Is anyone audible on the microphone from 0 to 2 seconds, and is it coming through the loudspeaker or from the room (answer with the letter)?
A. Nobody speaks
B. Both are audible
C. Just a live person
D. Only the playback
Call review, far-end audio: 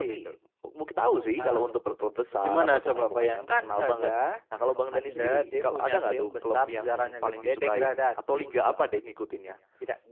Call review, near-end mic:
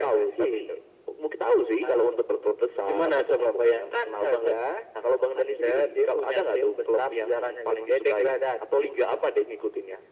D